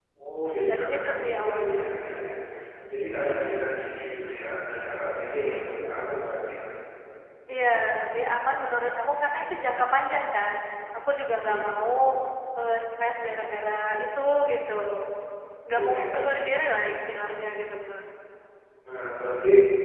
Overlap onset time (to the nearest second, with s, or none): 1 s